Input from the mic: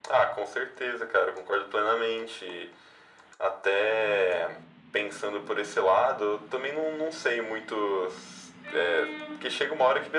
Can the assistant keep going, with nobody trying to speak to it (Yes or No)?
Yes